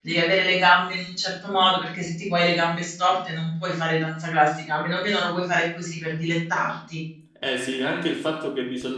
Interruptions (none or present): none